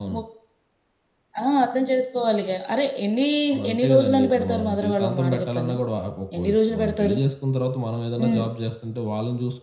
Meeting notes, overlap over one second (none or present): present